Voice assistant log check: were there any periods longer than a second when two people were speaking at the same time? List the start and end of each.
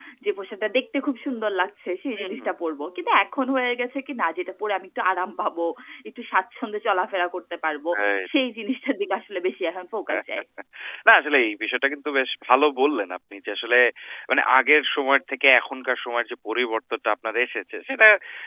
none

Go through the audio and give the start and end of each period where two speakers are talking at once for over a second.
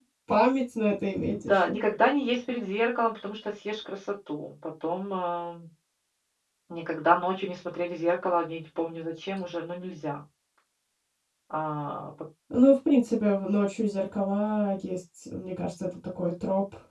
none

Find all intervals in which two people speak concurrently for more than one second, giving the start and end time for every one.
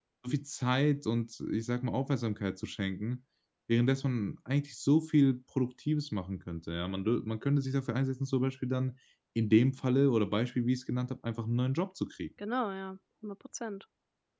none

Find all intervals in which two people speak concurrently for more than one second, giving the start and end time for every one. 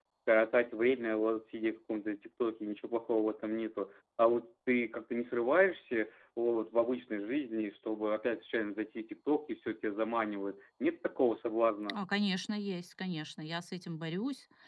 none

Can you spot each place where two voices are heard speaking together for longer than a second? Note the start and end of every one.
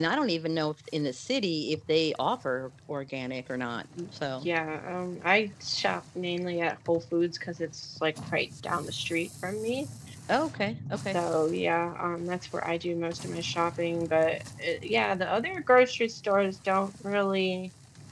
none

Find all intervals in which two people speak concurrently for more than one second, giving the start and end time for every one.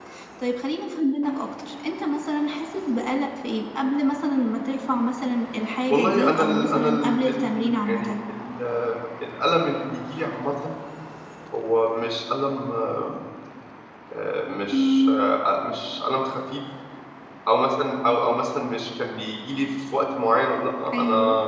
5.9-8.2

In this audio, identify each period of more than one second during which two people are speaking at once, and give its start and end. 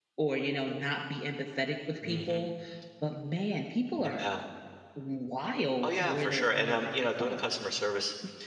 5.8-7.4

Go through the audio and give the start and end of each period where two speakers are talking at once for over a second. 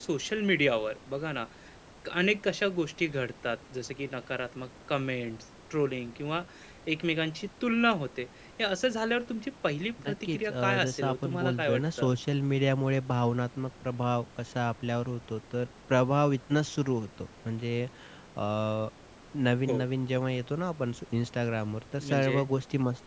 10.1-12.1

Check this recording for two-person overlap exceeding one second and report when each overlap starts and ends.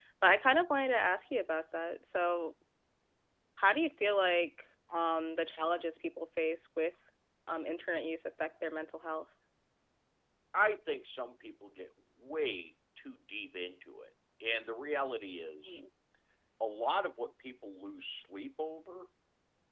none

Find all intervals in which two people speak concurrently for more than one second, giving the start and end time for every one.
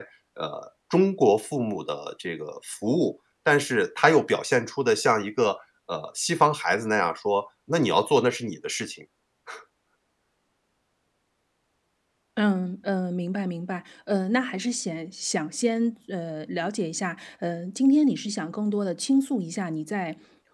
none

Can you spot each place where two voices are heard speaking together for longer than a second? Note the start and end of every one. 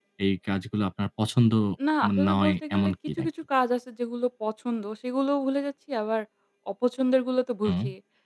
2.0-3.3

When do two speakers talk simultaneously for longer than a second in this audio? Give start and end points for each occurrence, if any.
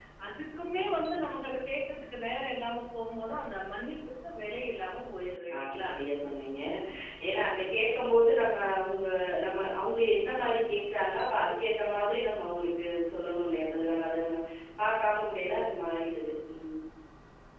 none

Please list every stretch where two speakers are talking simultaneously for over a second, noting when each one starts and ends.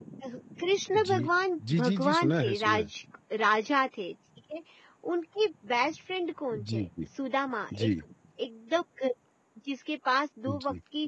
1.7-2.9

